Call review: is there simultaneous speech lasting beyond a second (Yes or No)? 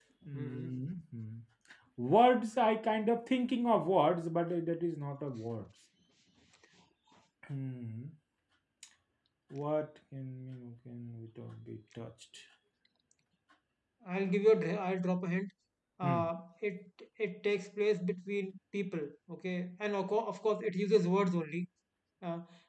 No